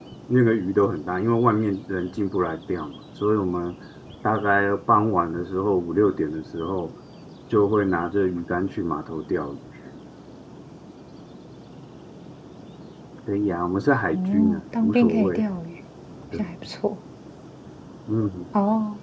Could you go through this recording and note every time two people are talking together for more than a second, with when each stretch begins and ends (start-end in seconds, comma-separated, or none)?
14.1-15.4